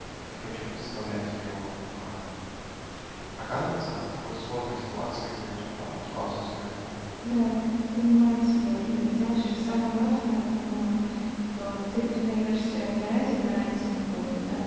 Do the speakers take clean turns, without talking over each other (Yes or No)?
Yes